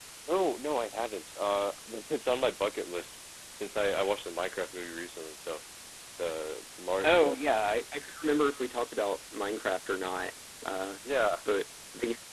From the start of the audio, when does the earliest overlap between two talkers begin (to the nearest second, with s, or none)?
none